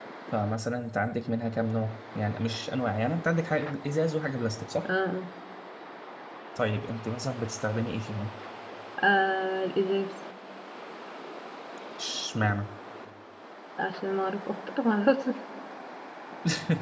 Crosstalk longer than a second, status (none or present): none